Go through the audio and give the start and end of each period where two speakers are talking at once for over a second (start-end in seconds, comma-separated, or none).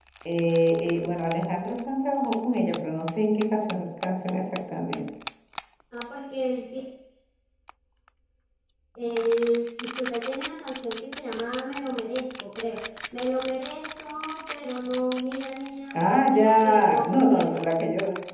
15.9-17.5